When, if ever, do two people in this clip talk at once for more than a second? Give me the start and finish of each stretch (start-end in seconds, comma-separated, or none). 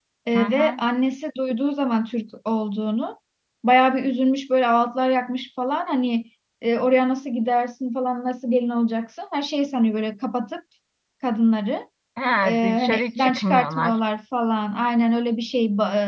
12.4-14.0